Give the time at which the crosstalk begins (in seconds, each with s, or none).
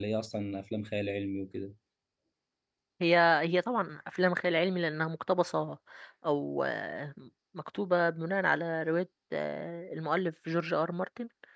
none